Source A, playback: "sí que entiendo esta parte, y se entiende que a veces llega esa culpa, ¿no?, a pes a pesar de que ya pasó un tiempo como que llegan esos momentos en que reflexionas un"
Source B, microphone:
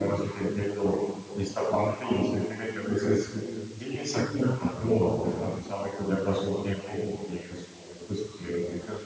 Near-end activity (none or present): none